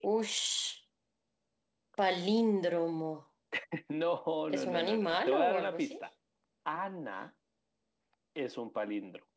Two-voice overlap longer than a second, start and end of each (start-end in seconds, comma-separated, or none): 4.5-6.0